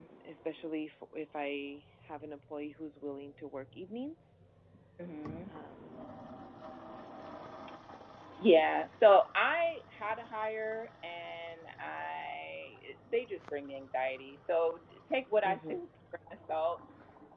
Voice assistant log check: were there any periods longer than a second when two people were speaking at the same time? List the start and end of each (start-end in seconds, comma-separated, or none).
none